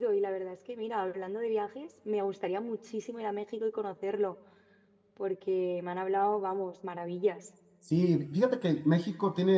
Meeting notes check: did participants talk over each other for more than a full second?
No

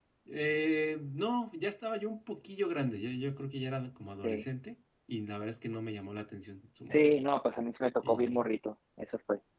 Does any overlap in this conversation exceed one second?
No

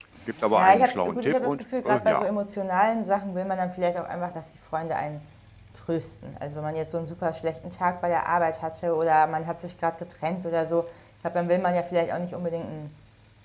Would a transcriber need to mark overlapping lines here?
Yes, from 0.5 s

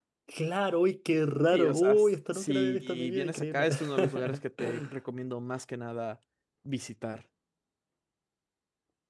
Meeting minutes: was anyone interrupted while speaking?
Yes, from 1.5 s

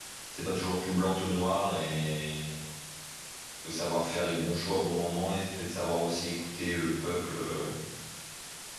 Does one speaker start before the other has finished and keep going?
No

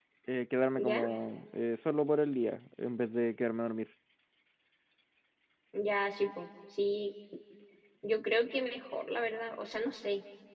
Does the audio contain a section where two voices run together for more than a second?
No

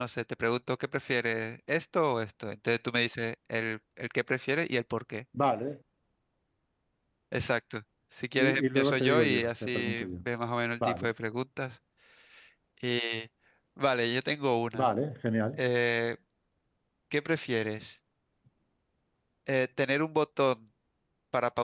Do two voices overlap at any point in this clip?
Yes, from 8.4 s

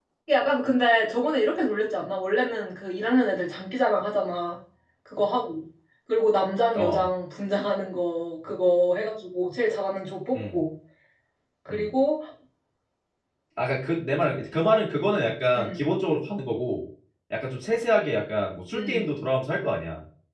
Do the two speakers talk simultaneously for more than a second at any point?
No

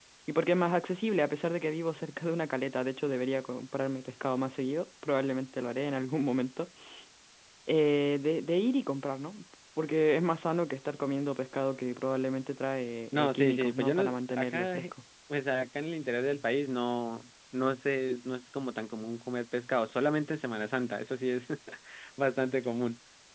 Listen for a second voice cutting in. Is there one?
Yes, from 13.1 s

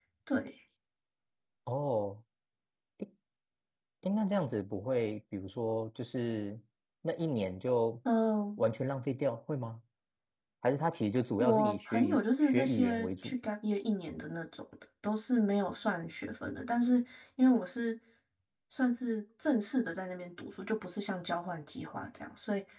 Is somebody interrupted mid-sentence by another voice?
Yes, from 11.4 s

